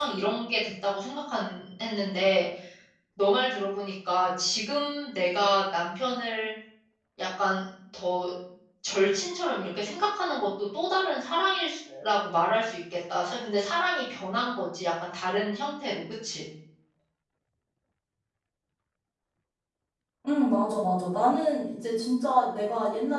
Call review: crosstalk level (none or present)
none